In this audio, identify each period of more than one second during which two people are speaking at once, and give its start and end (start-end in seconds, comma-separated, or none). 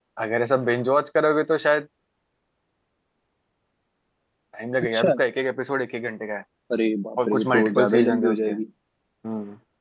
7.3-8.5